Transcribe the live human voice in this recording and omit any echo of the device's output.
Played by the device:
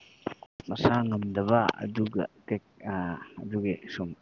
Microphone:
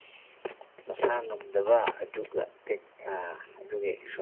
none

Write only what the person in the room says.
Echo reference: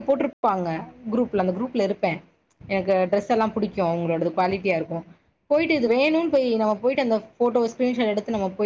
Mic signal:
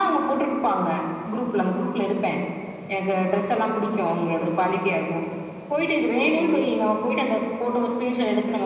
ம்

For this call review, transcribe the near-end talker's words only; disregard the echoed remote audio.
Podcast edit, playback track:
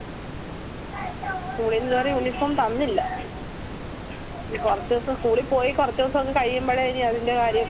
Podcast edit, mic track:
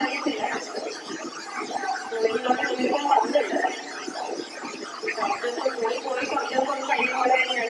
none

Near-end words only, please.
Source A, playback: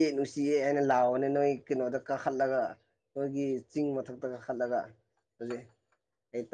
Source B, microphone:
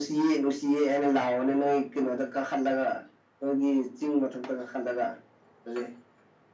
none

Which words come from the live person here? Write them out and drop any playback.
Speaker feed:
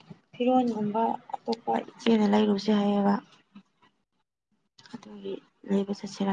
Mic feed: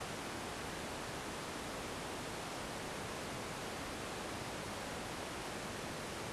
none

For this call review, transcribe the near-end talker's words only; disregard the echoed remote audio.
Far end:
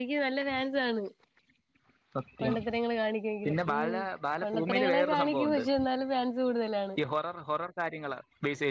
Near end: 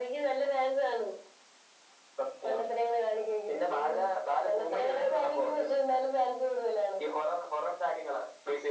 none

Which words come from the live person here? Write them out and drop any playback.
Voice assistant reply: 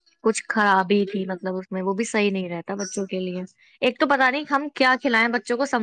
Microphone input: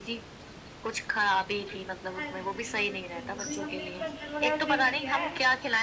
ہاں جی بہت اچھا وہ ہم نے اپنا گھرگایا چینج کیا ہے

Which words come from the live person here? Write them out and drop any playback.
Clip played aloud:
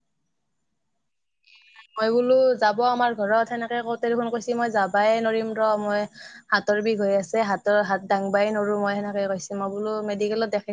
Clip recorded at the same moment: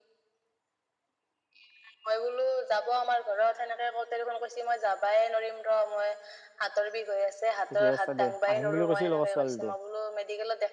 ঠিকে আছে দে। আহিম বুলি কৈছিল আকৌ ছোৱালীটো

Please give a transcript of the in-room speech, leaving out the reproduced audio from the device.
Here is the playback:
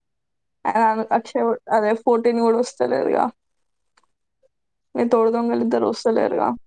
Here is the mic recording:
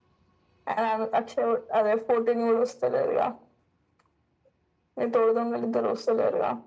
none

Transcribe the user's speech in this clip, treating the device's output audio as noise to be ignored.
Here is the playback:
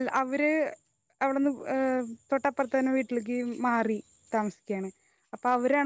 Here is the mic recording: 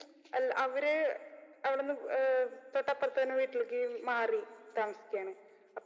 none

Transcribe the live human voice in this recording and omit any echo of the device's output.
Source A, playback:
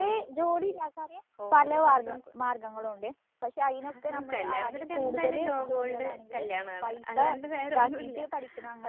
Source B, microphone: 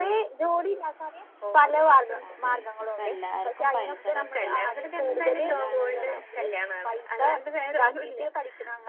അതെ ഇപ്പൊ എല്ലാർക്കും പൈസടെ അത്യാവശ്യം കൂടുതലാണ് നമ്മക്ക്

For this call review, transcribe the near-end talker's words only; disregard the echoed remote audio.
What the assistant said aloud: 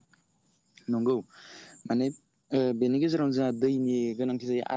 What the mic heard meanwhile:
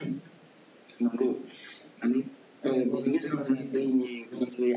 औ औ नंगौ थारैनो नंगौ

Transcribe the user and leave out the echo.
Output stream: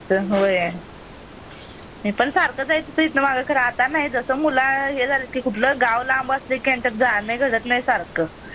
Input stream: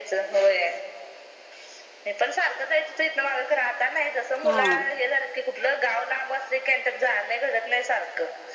हा

